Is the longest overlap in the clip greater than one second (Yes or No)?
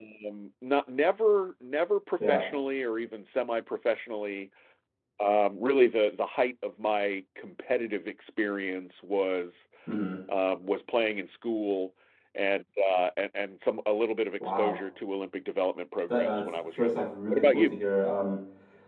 Yes